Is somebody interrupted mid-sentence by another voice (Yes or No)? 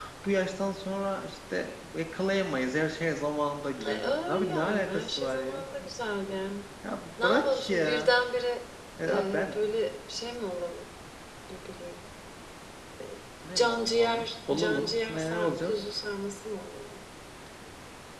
Yes